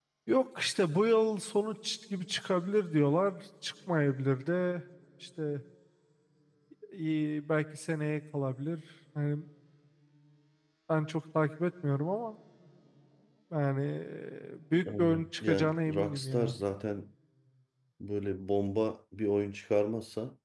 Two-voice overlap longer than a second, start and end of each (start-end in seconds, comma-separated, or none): 15.0-16.5